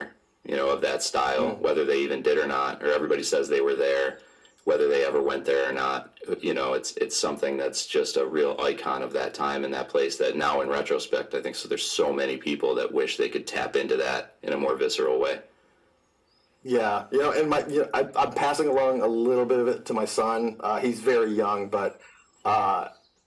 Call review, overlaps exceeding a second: none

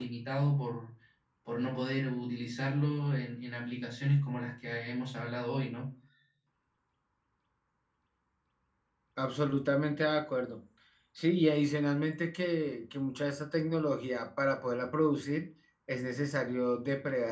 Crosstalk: none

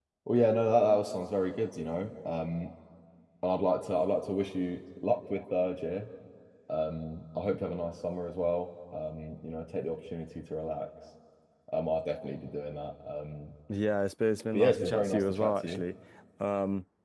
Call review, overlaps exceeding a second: present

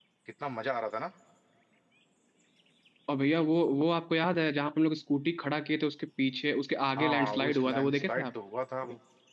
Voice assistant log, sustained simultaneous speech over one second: present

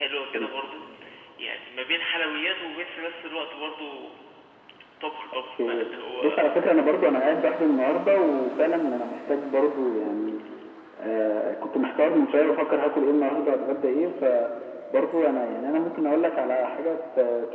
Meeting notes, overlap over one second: none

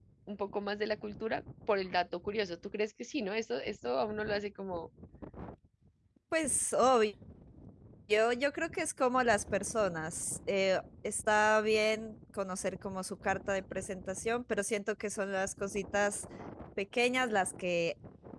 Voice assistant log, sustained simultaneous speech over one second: none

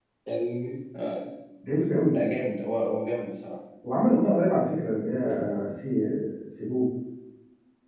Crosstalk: none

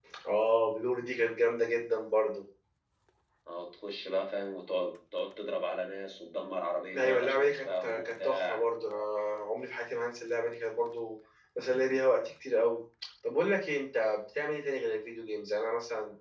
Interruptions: present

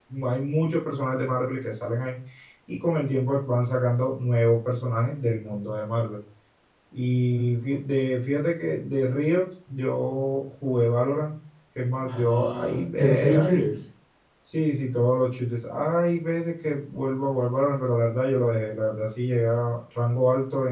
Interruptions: present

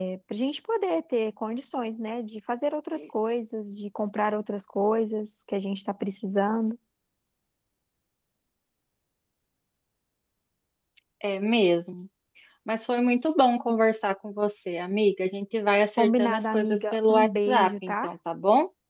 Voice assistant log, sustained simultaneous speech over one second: present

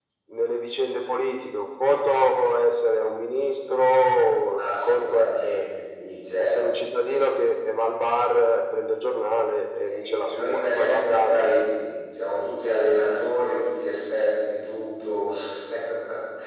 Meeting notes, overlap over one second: present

